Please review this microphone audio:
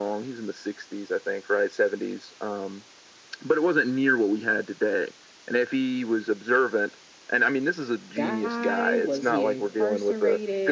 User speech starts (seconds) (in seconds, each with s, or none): 8.1 s